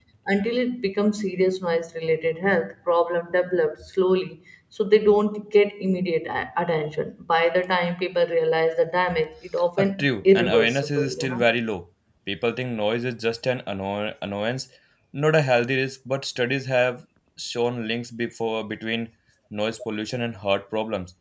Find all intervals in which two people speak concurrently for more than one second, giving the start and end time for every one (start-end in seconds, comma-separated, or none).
9.8-11.4